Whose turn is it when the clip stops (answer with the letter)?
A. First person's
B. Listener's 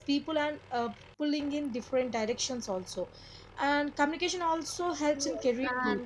B